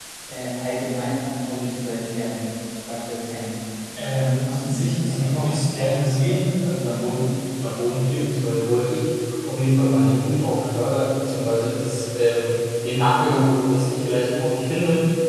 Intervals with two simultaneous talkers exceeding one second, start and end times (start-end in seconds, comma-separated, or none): 4.1-5.5